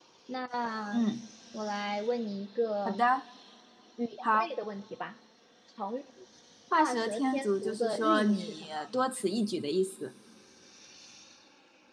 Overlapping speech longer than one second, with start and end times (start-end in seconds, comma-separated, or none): 6.8-8.8